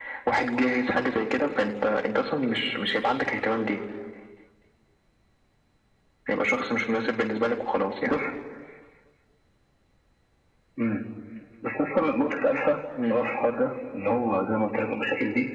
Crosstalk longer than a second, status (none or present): none